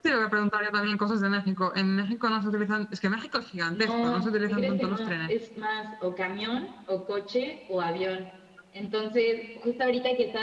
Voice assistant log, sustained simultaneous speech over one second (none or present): present